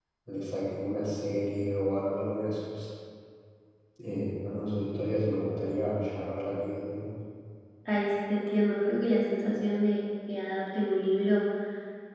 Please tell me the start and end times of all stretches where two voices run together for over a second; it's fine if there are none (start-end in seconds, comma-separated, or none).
none